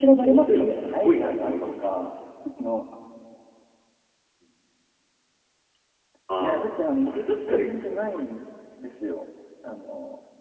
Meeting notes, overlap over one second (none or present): present